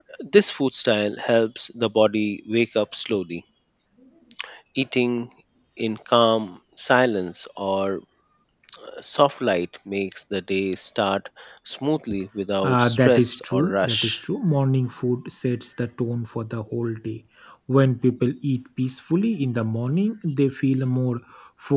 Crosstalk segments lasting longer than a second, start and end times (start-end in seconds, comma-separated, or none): 12.6-14.2